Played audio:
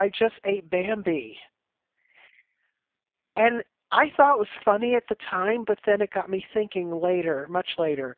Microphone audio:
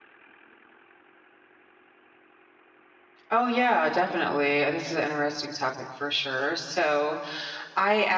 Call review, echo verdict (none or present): none